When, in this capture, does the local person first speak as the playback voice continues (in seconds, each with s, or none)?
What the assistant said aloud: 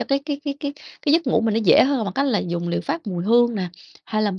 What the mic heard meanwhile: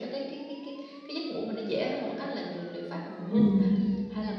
3.3 s